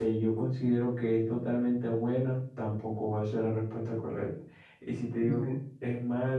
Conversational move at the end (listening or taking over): listening